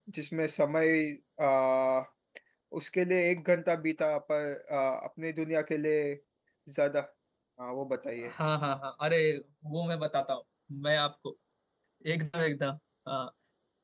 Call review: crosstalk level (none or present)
none